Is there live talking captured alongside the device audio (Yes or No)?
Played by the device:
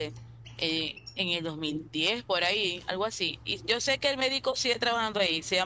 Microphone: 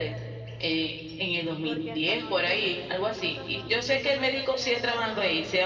Yes